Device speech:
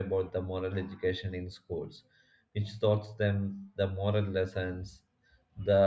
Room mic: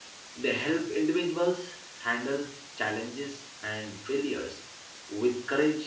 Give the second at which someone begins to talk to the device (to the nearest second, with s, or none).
0 s